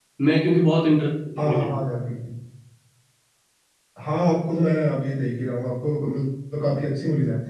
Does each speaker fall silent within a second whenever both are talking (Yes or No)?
Yes